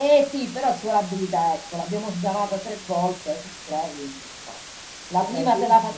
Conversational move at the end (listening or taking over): listening